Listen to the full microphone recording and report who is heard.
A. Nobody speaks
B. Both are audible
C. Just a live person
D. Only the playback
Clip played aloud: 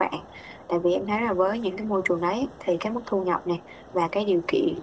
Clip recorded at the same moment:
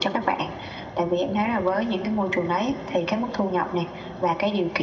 D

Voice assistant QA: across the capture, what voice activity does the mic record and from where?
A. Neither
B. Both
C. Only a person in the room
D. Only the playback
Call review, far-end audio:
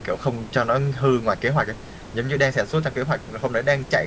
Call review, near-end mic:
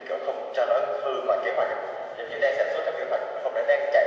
D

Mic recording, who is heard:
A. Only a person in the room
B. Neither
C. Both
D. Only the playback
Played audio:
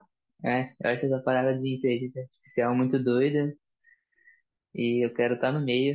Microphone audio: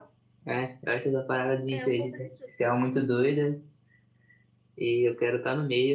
C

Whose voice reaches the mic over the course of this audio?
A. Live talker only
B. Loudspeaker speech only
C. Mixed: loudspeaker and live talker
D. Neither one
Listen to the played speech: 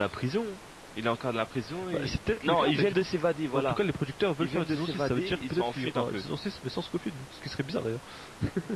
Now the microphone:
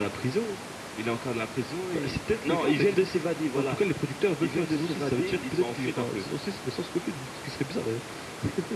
B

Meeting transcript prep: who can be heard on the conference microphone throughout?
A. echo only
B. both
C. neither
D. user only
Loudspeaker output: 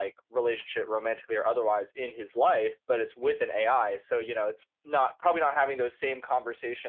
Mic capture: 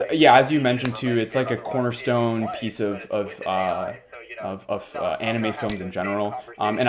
B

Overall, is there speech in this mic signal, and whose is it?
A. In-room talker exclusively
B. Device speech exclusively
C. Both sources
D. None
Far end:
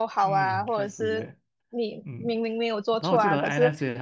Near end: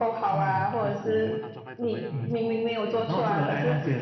C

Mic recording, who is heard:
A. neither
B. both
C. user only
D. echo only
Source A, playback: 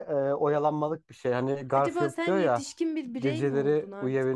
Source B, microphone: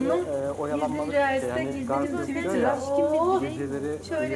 B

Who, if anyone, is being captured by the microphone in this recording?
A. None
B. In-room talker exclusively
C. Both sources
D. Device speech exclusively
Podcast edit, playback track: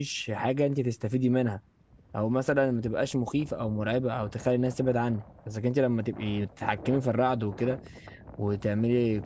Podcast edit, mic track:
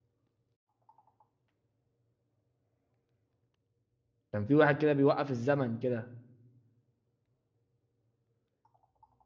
B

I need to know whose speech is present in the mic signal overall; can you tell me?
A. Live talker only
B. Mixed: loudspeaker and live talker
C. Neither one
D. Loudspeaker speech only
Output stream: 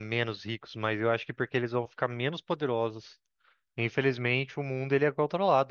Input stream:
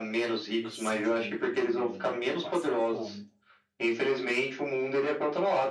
B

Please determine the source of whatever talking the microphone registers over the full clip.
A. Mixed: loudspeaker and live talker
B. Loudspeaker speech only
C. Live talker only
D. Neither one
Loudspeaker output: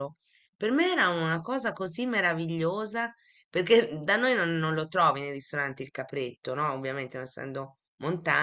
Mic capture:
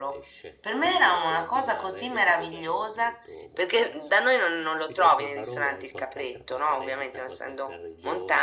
A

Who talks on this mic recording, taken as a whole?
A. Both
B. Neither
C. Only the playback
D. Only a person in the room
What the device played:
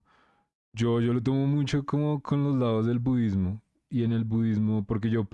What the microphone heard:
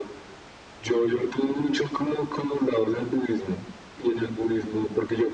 C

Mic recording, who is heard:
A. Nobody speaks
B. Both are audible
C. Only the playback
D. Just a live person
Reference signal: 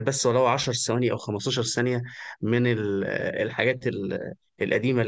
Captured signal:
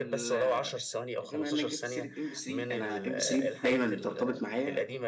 B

